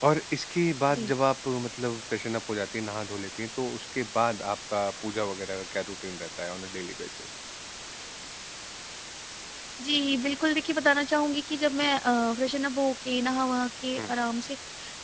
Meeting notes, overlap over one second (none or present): none